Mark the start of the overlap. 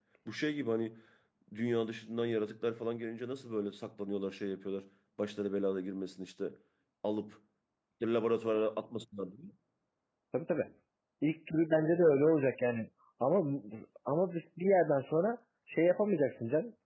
none

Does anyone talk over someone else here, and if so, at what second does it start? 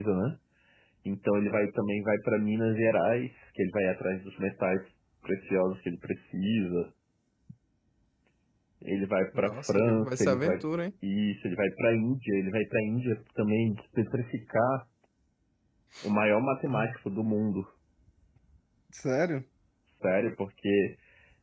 9 s

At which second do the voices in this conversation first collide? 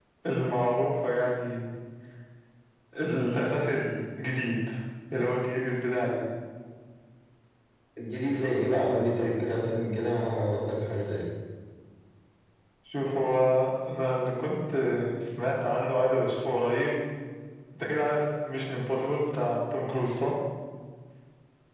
none

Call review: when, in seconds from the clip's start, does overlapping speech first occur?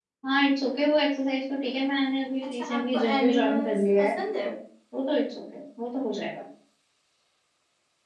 2 s

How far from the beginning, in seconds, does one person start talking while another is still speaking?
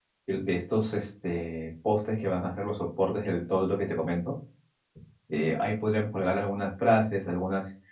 none

